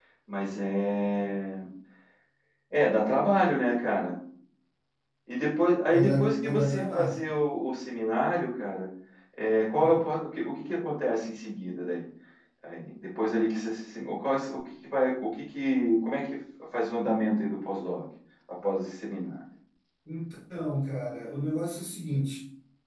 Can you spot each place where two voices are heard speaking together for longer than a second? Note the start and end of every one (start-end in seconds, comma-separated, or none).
5.9-7.2